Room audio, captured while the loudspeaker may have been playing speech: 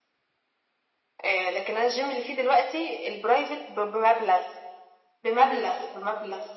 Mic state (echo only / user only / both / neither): echo only